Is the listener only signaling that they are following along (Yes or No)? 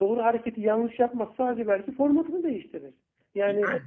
Yes